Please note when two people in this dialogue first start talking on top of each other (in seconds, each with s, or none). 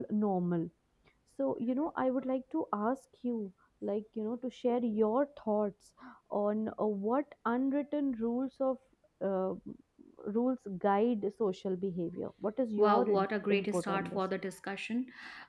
12.8 s